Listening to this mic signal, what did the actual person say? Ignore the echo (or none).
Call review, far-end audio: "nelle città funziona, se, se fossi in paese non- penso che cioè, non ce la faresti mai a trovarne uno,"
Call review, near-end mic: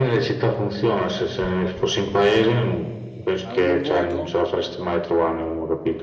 Hai un buon voto?